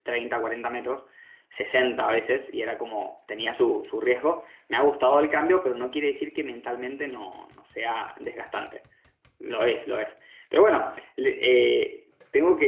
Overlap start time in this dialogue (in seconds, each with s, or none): none